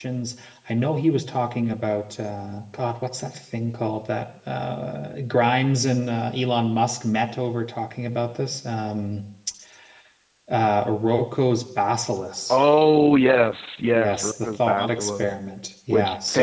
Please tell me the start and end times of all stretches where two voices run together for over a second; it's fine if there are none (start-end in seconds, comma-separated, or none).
13.9-15.3